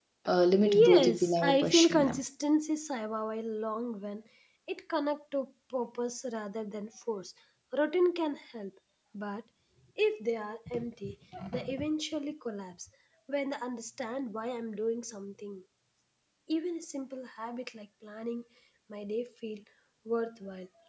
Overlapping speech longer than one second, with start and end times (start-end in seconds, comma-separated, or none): 0.6-2.2